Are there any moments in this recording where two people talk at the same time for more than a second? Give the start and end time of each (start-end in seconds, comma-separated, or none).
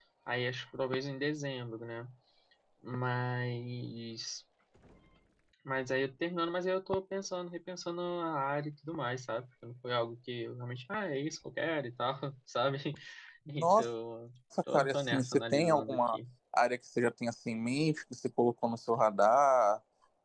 14.7-16.2